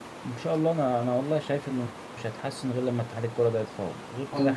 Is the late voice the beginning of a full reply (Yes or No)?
Yes